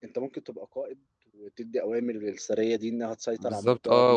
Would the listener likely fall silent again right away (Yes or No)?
No